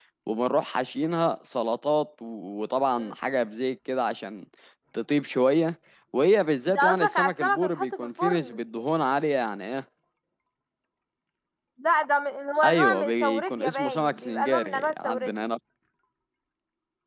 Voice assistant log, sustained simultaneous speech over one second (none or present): present